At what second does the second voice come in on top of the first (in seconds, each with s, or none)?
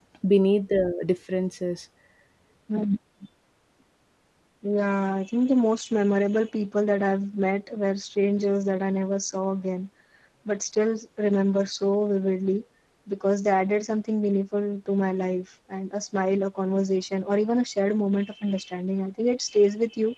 none